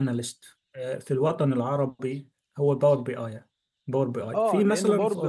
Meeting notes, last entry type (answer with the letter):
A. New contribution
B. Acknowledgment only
A